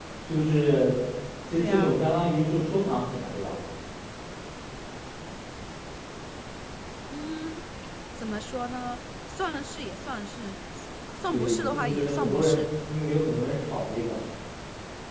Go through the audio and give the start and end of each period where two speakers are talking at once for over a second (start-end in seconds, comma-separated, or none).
11.3-12.7